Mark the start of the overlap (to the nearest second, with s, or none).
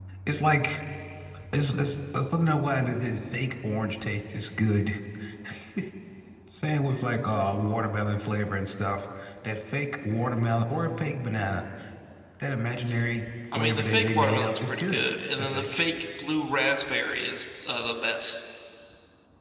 14 s